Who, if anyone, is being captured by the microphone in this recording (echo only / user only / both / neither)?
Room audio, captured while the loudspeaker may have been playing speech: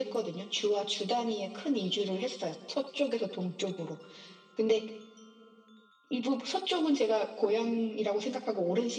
echo only